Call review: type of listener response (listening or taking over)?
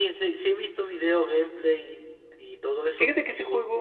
taking over